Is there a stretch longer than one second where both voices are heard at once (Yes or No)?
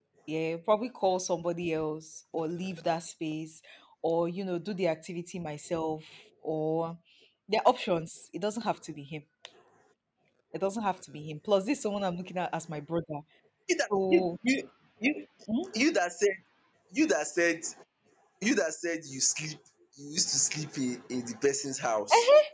No